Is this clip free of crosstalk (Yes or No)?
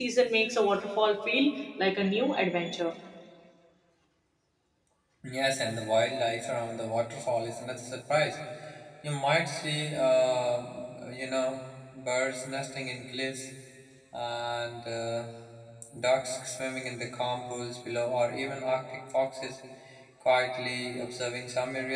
Yes